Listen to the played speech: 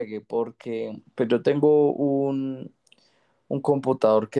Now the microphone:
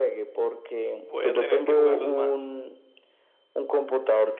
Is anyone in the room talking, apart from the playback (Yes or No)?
Yes